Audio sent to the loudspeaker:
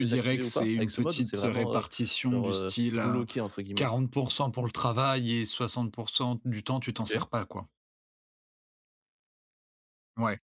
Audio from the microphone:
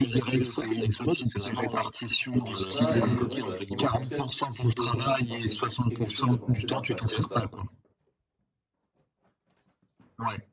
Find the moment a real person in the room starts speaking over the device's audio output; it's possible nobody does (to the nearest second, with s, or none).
2 s